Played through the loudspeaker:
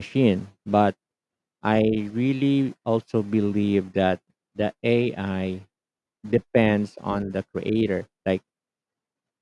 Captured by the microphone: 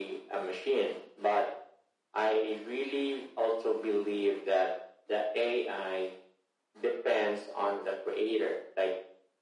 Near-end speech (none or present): none